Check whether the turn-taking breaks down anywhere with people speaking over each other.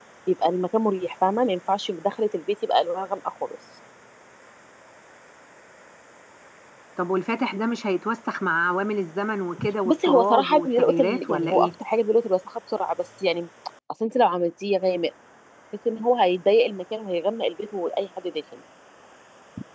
Yes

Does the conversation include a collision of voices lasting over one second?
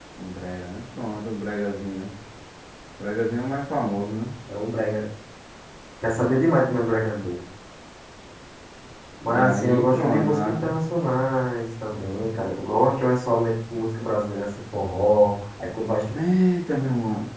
Yes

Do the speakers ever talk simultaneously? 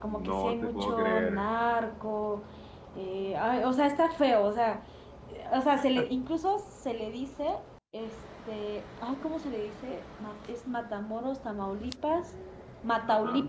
Yes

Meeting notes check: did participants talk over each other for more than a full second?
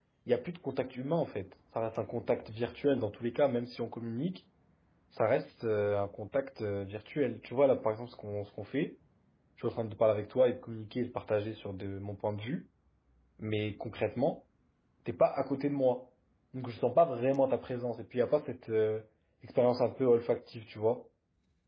No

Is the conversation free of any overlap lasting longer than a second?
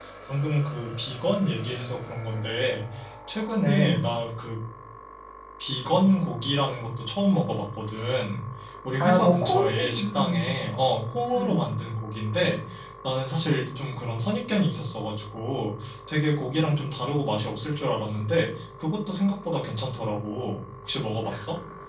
No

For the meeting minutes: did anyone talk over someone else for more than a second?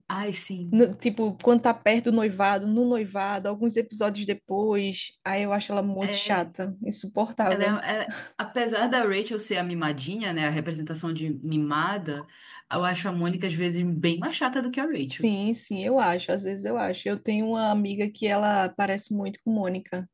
No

